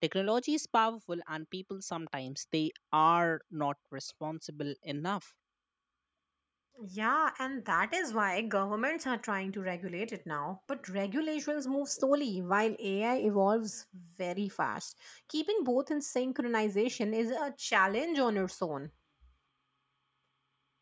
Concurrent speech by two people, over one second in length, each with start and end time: none

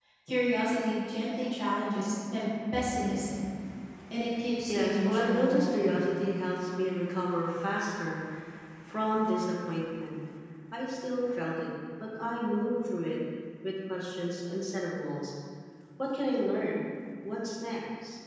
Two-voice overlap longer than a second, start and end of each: 4.7-6.0

